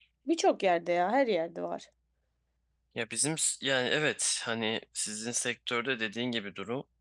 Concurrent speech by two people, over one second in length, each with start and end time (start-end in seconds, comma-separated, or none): none